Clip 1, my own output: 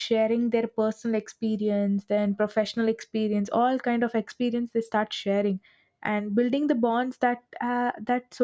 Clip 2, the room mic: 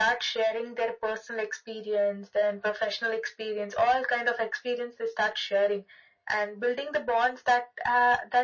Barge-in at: none

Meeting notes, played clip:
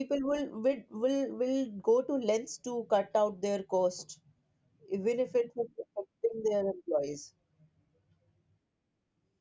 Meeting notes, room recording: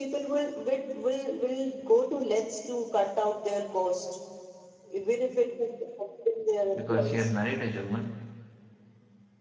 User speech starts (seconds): 6.7 s

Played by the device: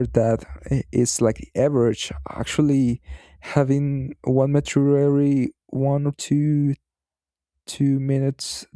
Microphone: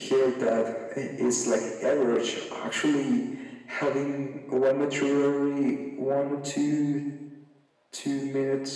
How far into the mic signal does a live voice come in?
none

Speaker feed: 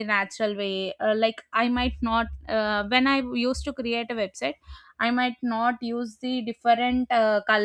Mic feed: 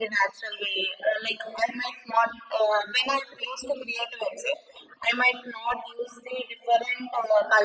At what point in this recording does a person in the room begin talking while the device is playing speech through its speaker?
none

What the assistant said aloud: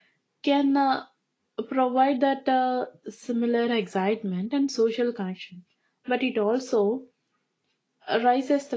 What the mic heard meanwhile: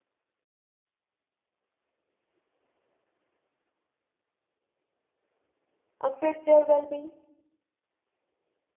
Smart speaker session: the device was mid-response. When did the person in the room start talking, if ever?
6.0 s

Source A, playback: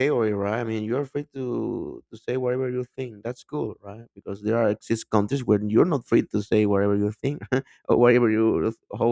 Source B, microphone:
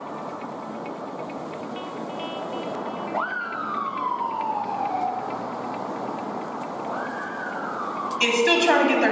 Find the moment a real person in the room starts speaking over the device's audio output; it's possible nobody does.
8.2 s

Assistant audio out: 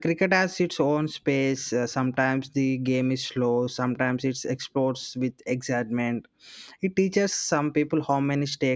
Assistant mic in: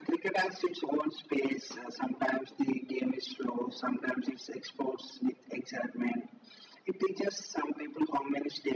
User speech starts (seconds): none

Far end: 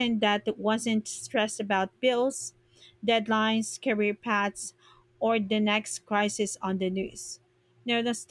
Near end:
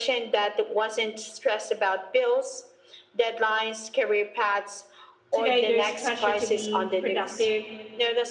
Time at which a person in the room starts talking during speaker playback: 5.3 s

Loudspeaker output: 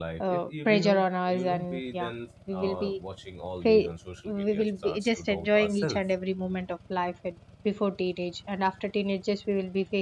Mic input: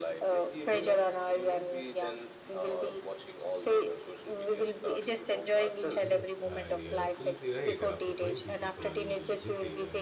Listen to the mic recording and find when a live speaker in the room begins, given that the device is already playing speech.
6.0 s

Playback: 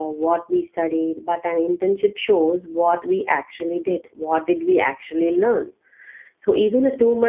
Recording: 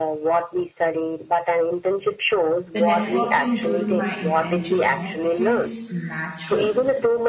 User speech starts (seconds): 2.7 s

